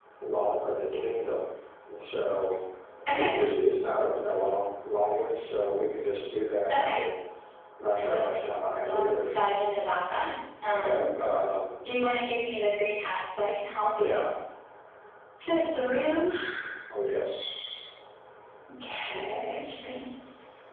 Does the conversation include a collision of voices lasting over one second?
No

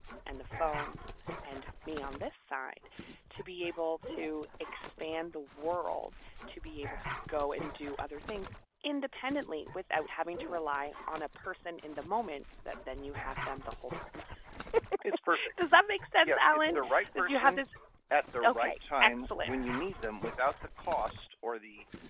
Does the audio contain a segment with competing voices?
Yes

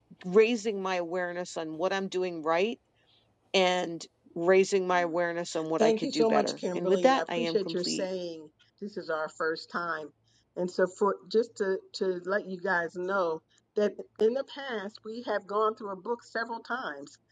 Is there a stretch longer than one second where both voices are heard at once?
Yes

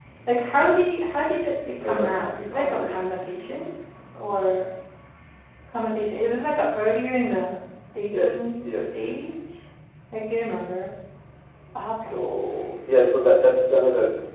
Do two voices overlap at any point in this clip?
Yes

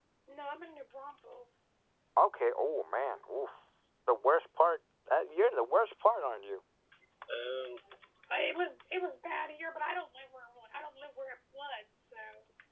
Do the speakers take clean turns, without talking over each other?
Yes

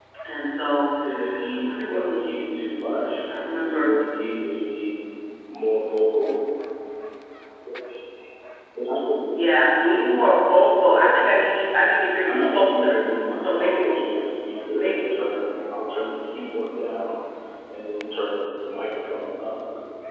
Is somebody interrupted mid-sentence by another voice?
Yes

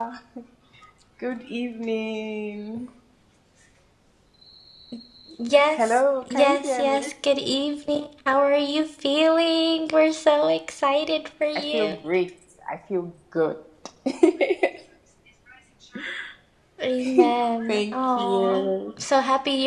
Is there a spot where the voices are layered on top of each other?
Yes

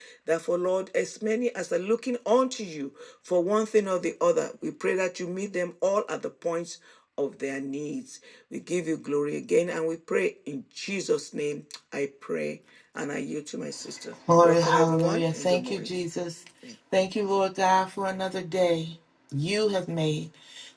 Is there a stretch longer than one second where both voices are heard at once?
Yes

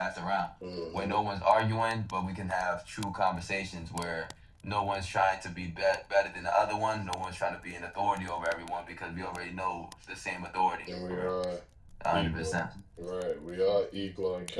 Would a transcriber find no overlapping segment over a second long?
Yes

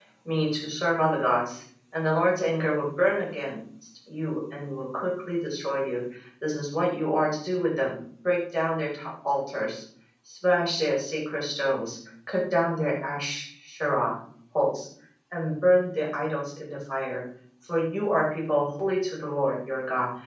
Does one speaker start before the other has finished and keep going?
No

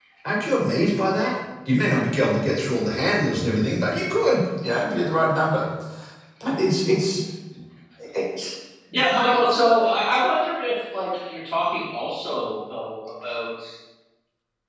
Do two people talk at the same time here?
No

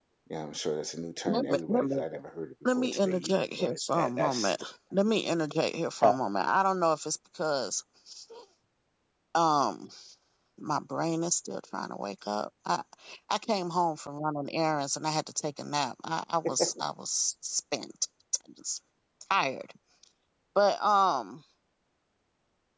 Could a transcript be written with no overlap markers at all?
No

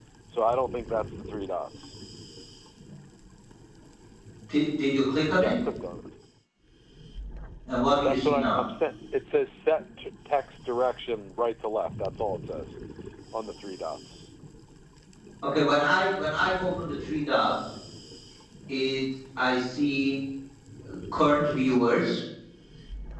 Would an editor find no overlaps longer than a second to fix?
Yes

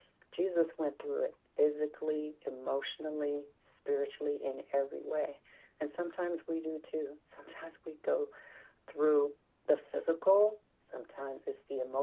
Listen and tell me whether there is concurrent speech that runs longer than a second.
No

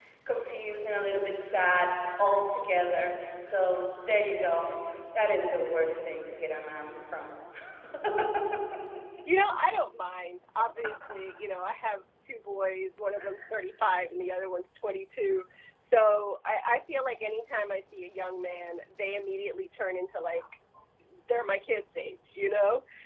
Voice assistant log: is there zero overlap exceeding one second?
Yes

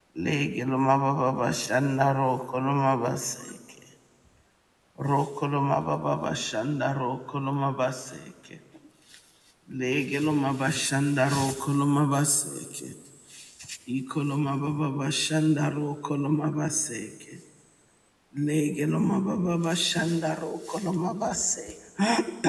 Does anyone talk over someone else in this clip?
No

